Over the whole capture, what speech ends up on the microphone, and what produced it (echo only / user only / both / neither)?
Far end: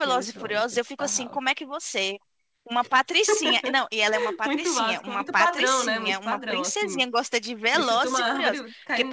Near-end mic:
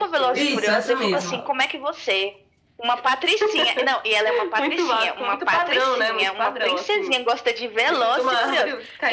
both